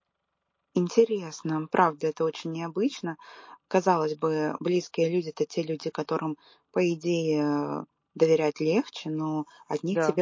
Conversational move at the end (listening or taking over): listening